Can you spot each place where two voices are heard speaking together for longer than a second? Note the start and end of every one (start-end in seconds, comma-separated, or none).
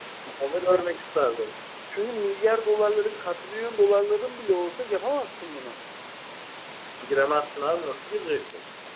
none